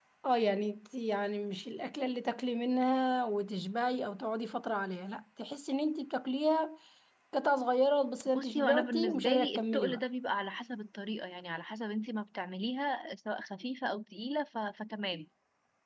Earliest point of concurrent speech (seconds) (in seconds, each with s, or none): 8.3 s